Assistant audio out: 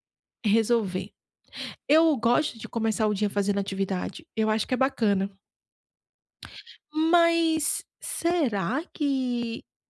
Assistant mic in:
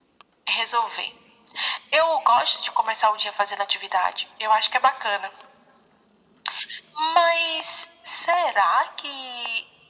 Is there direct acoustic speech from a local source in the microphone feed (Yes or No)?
No